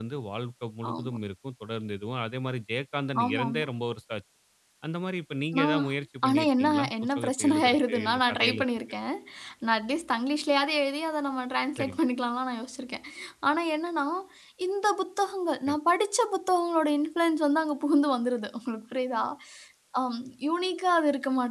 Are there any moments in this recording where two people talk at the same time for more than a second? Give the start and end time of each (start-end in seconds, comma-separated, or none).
6.2-8.6